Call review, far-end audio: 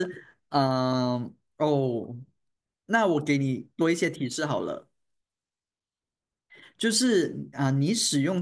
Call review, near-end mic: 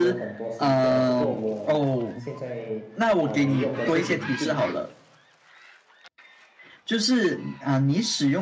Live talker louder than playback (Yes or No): No